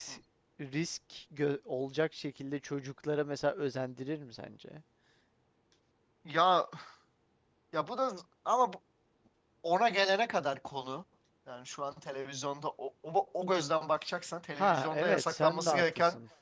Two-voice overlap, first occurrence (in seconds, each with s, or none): 14.6 s